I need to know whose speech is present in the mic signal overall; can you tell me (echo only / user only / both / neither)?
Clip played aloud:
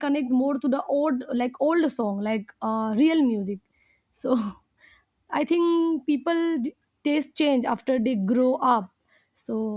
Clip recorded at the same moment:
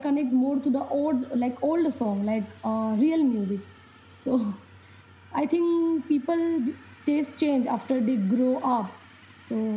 echo only